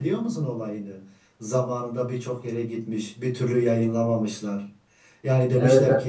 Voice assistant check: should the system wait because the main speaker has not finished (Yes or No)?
Yes